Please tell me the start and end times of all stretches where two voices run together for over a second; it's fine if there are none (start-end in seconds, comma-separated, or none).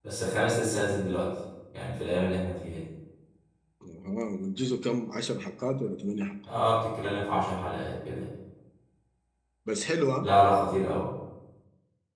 none